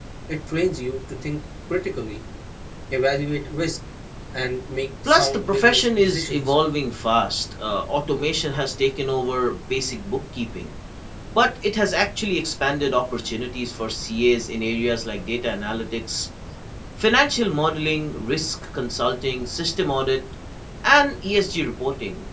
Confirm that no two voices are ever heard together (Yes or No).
No